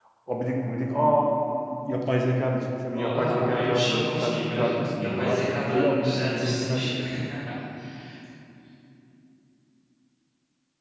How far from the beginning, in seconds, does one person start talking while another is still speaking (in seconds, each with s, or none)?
2.9 s